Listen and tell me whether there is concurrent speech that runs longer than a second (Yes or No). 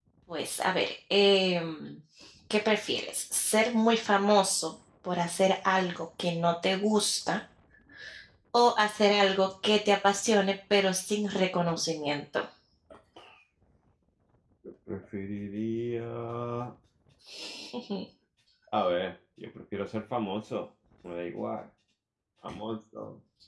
No